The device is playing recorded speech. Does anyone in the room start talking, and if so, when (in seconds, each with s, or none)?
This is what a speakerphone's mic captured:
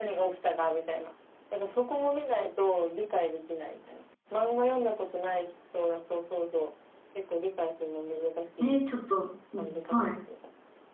8.6 s